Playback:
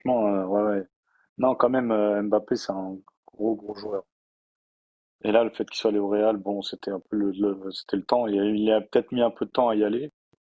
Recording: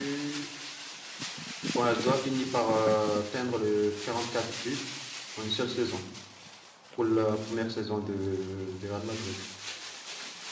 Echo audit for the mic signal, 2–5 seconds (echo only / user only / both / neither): user only